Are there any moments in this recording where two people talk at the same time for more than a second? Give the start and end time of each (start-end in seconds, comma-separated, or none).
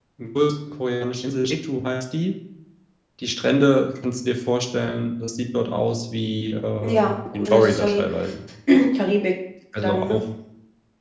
6.8-8.0